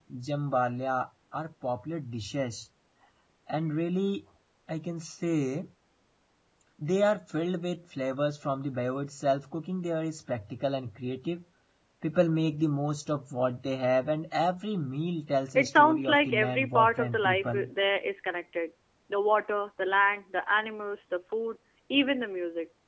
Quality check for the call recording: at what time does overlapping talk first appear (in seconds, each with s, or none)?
15.6 s